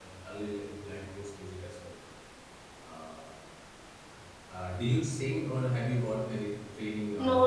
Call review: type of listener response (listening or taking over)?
taking over